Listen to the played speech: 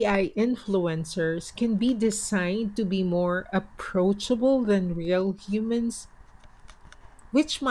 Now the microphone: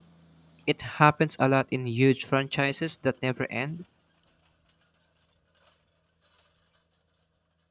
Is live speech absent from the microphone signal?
No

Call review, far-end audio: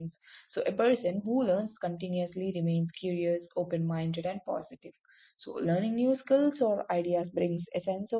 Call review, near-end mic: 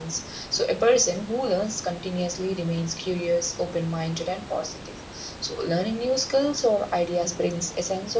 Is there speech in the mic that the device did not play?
No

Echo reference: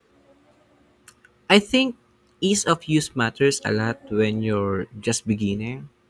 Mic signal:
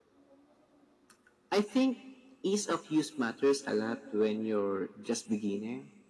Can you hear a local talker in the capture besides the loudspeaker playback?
No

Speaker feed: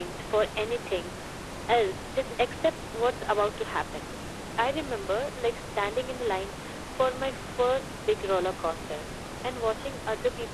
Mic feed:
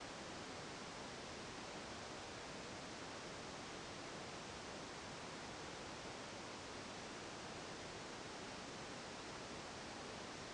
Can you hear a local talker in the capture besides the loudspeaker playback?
No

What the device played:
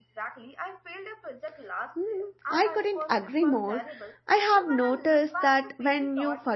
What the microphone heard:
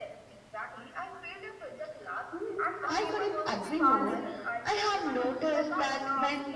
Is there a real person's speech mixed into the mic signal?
Yes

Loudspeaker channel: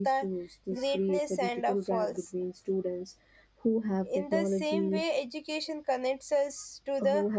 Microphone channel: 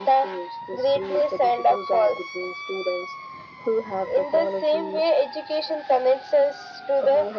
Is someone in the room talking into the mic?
No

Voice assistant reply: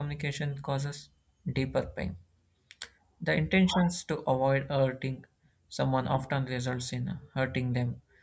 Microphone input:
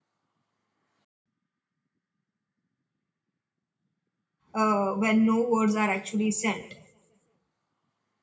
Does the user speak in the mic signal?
Yes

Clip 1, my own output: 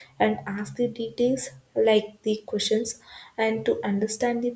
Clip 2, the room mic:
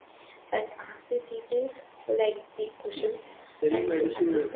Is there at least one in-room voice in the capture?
Yes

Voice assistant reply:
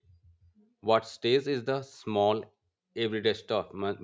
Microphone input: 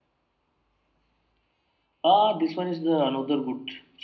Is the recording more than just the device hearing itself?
Yes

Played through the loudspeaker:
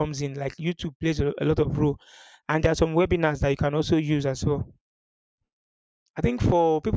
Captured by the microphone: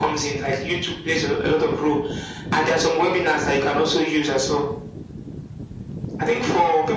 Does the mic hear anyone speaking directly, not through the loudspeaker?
No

